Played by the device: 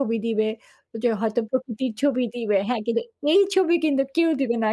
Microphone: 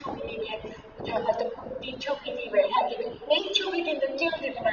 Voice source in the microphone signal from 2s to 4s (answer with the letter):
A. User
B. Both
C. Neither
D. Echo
D